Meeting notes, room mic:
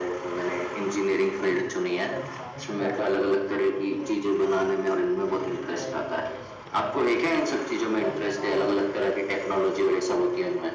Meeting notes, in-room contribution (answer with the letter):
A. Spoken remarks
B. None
A